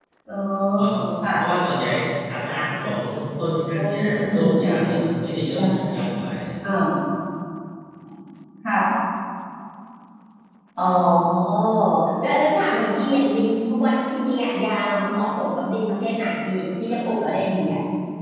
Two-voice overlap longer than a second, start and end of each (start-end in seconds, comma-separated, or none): 3.7-5.0